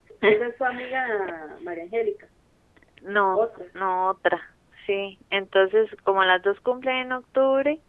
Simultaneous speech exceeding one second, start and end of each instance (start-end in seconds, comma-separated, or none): none